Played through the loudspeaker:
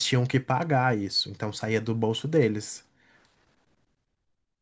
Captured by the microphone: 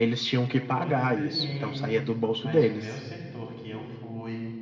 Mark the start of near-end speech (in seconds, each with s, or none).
0.5 s